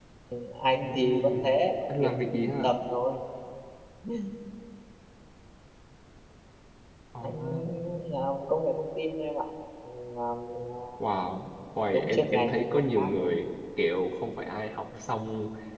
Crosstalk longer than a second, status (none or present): present